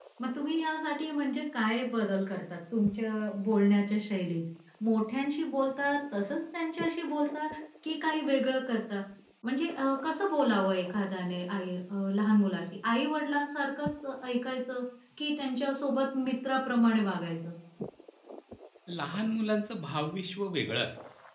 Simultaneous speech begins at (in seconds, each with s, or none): none